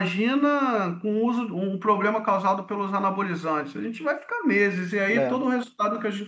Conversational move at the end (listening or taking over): listening